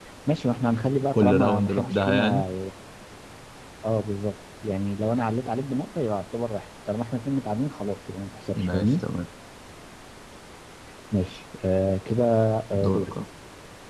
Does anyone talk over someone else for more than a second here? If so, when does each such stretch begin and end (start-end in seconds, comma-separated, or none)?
1.1-2.4